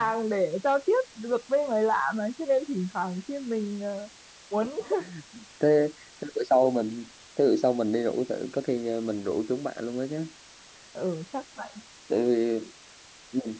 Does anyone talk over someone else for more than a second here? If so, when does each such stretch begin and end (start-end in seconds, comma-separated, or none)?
none